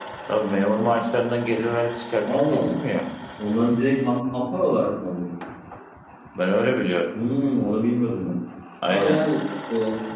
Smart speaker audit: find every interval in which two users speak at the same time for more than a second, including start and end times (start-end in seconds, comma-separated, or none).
none